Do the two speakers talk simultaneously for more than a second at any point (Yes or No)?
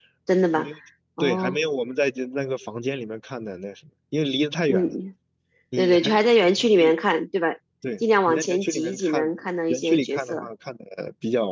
Yes